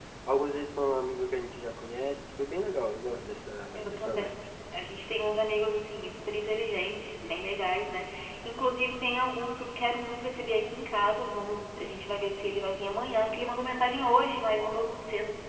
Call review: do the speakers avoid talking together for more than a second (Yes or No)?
Yes